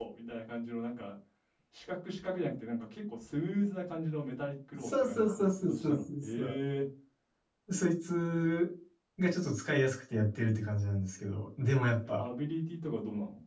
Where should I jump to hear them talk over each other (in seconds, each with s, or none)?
4.7 s